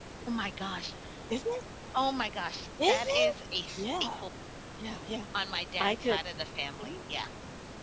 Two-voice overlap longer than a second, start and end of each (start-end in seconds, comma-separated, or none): none